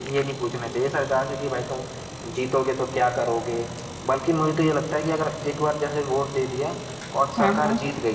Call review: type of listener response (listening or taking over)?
listening